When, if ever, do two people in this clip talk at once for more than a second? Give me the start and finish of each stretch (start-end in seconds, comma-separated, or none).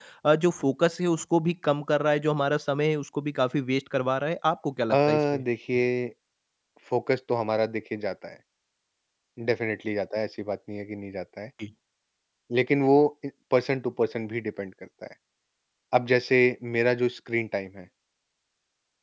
none